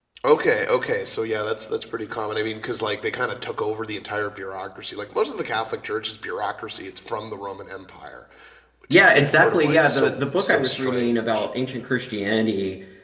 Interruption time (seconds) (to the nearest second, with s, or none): 9 s